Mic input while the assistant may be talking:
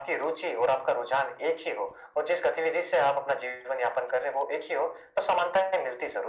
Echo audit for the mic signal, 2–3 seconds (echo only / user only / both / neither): echo only